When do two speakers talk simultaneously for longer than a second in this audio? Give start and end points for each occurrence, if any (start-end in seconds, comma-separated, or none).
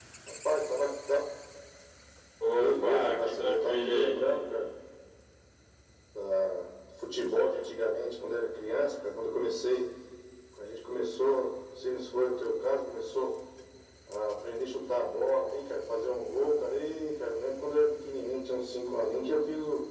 2.6-4.1